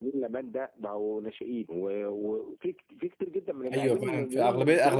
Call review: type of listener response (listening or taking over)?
taking over